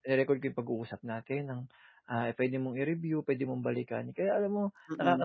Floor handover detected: No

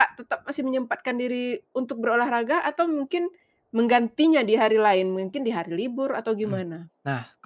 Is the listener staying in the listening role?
No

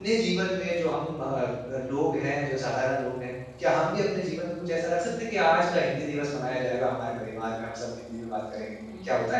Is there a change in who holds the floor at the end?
Yes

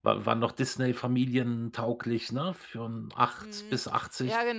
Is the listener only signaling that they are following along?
No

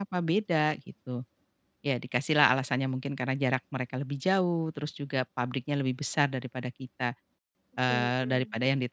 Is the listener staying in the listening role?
Yes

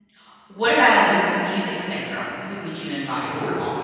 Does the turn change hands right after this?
Yes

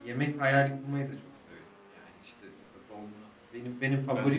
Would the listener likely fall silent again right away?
Yes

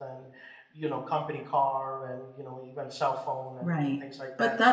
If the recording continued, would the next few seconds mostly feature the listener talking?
Yes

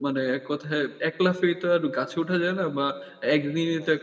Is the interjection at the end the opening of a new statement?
No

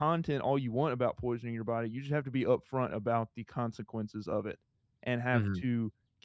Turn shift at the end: No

